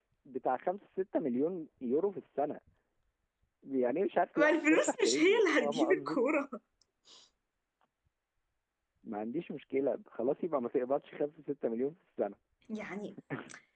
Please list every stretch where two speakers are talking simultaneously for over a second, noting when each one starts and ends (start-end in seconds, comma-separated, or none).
4.4-6.2